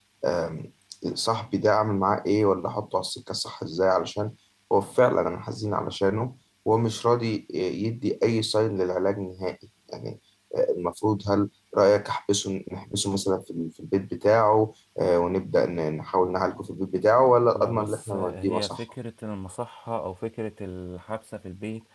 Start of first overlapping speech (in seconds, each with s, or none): 17.5 s